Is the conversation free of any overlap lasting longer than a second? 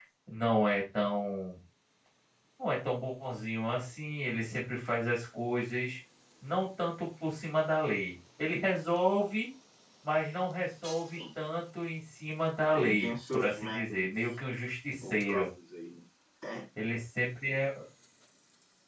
No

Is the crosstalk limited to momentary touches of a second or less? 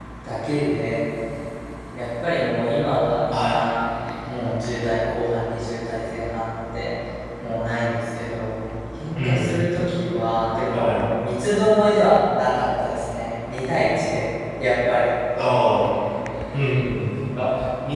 Yes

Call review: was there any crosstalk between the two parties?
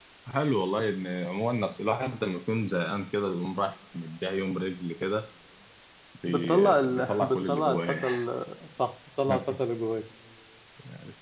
Yes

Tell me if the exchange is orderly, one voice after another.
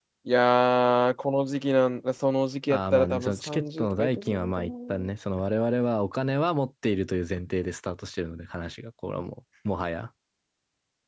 No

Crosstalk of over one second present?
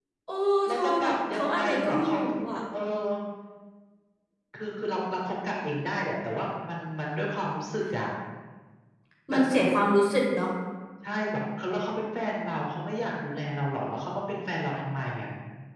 Yes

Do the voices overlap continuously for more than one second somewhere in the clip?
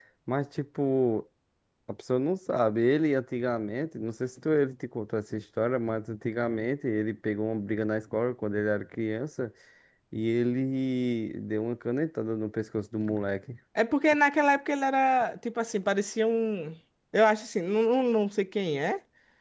No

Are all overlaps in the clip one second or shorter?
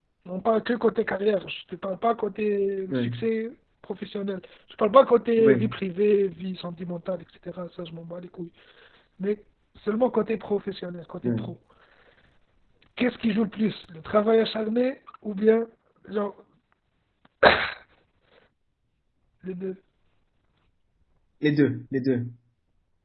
Yes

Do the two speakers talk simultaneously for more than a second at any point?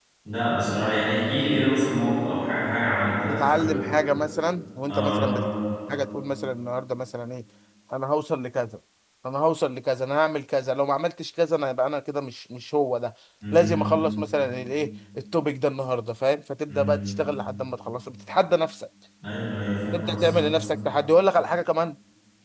No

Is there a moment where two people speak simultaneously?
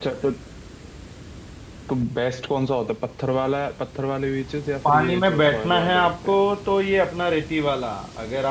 Yes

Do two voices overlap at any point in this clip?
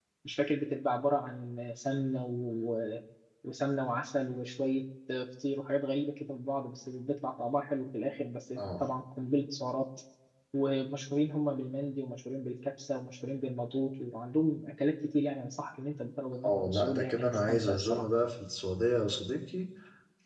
Yes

